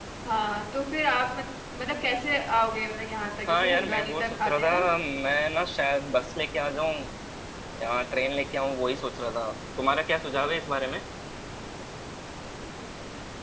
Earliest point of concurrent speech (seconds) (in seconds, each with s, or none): 3.5 s